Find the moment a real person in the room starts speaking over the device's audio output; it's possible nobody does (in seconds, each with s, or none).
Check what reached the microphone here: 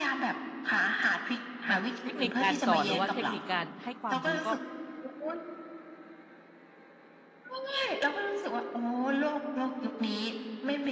1.7 s